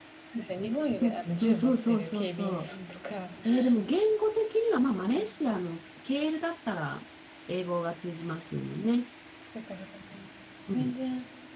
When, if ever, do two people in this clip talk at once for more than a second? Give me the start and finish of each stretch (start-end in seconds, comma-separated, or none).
1.0-2.7